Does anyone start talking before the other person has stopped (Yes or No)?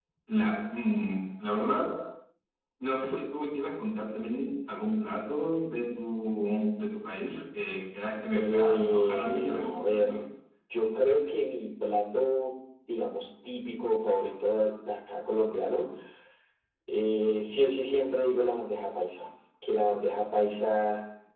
Yes